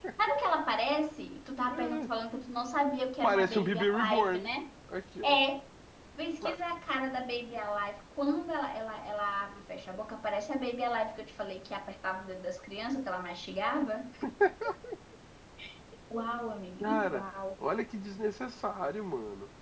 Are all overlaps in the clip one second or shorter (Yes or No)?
No